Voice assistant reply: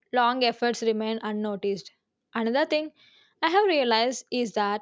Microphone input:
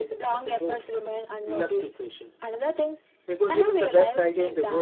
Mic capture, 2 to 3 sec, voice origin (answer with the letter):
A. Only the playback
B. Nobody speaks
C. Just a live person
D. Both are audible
D